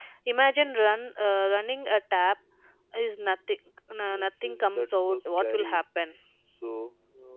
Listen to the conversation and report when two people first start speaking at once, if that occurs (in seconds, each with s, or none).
4.1 s